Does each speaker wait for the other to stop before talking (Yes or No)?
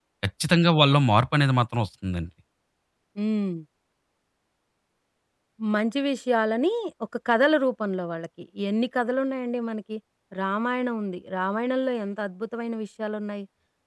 Yes